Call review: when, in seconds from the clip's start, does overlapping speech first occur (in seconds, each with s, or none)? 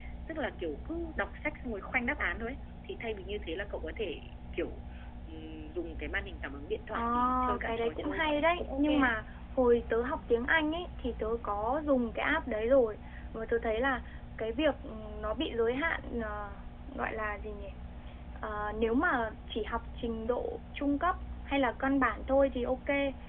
6.9 s